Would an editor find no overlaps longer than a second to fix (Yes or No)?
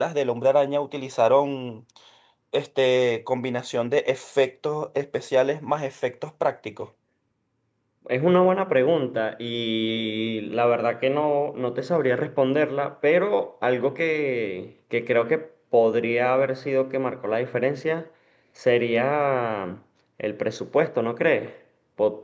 Yes